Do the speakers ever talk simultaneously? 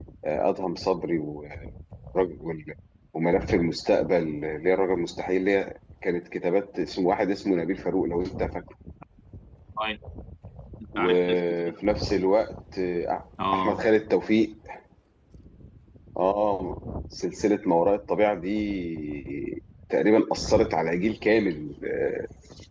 Yes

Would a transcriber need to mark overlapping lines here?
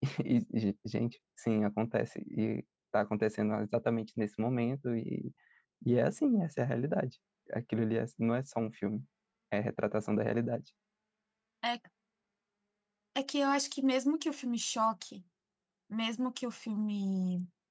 No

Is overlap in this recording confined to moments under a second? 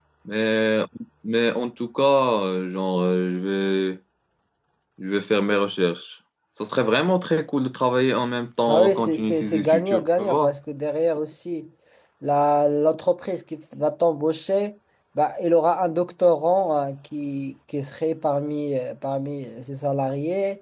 No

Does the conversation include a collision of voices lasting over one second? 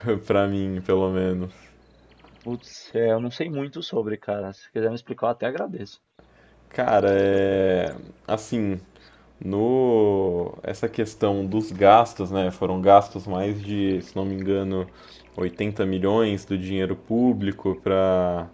No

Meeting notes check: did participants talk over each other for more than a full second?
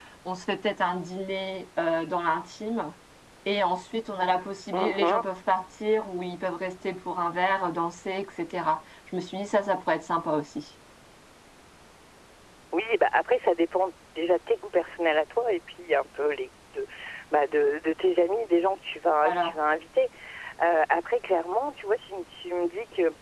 No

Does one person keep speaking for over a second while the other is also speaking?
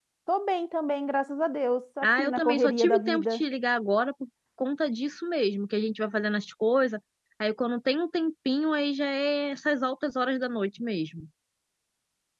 Yes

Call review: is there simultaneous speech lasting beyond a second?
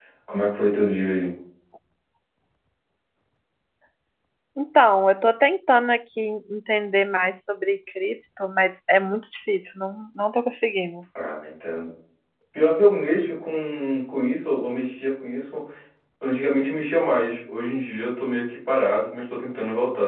No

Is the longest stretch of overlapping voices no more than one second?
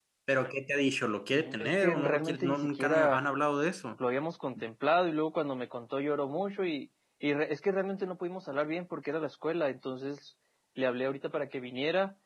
No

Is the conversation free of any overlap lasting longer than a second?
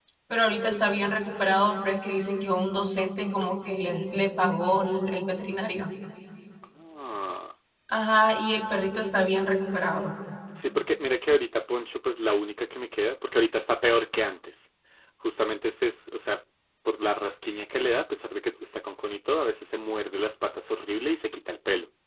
Yes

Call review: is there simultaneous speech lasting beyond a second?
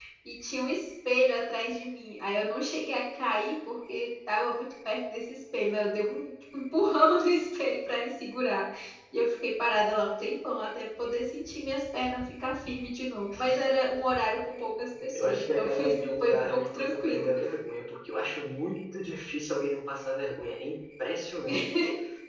Yes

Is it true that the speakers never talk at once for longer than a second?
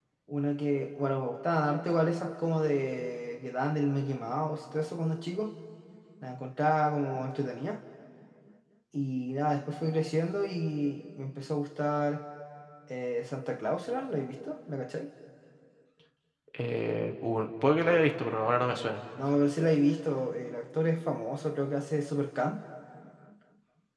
Yes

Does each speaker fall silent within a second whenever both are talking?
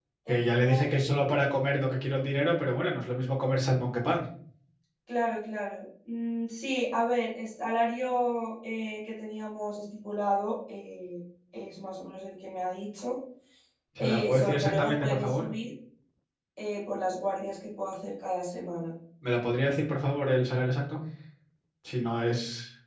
No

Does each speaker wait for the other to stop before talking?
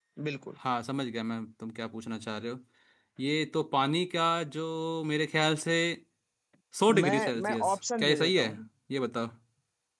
No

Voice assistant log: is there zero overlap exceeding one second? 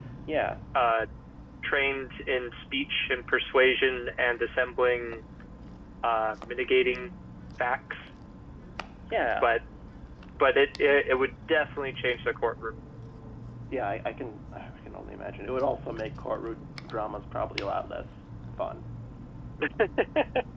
Yes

